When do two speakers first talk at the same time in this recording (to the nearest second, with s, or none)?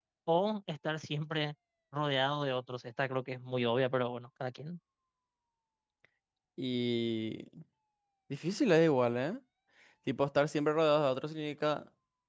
none